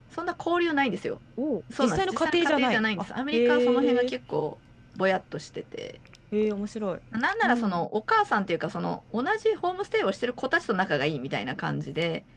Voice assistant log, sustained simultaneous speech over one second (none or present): present